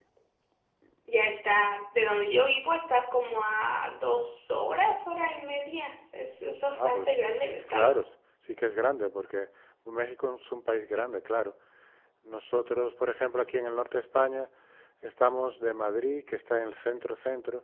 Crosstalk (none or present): present